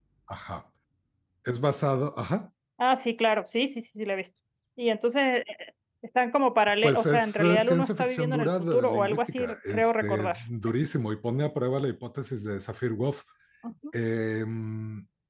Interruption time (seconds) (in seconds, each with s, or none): 6.8 s